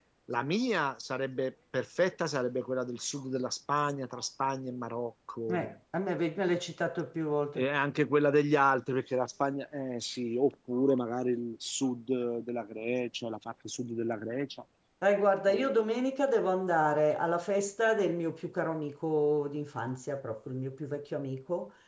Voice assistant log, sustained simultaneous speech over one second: none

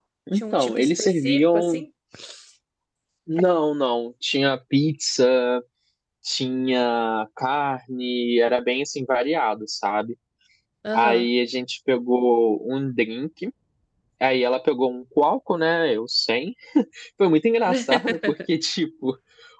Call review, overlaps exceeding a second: present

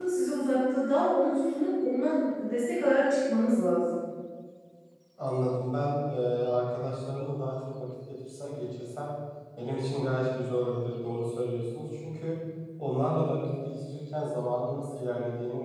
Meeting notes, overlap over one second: none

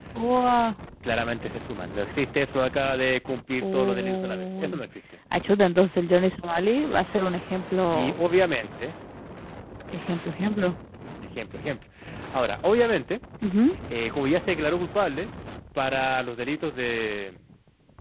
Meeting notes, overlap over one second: present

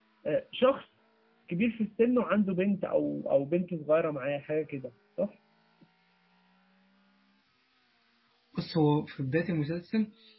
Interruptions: none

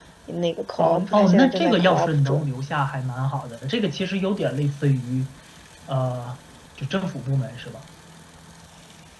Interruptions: present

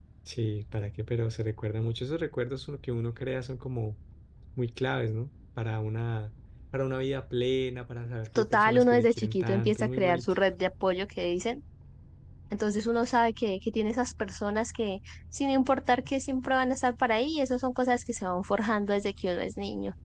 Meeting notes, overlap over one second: present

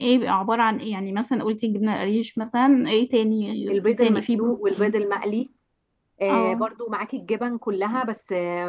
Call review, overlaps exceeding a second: present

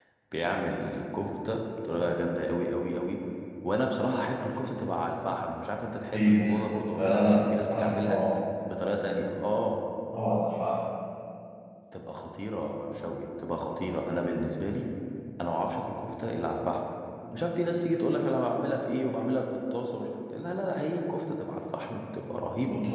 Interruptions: present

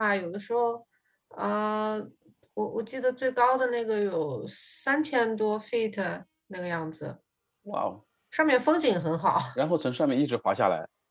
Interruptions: none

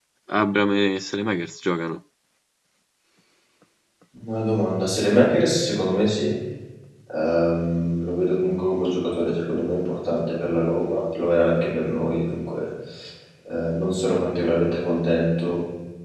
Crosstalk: none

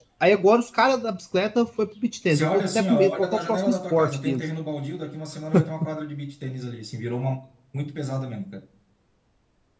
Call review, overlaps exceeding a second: present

